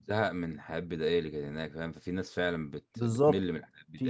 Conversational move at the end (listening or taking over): taking over